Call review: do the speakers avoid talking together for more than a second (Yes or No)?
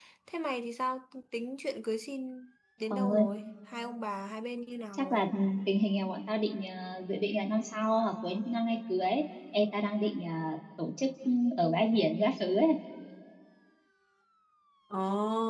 Yes